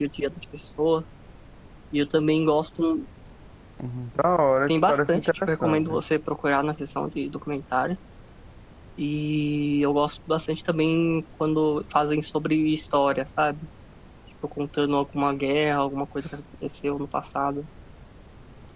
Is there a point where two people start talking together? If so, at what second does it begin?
4.7 s

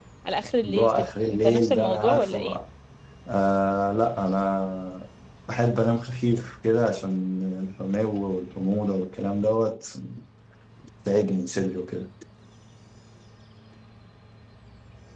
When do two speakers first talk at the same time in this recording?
0.6 s

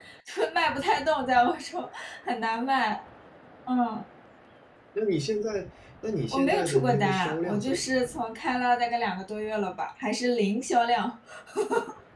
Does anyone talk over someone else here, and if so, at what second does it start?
6.3 s

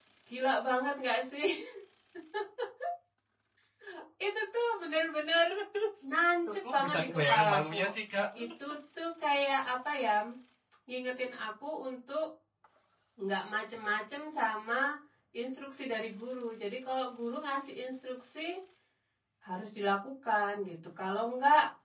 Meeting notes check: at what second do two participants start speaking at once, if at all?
6.5 s

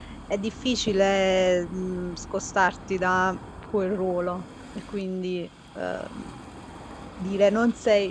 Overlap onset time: none

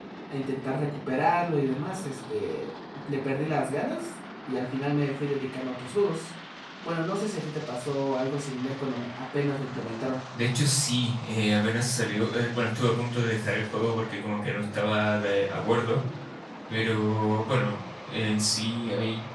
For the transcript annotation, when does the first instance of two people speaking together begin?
none

